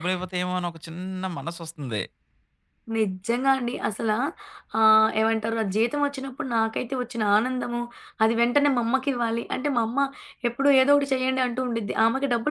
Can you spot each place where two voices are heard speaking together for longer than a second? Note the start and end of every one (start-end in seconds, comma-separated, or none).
none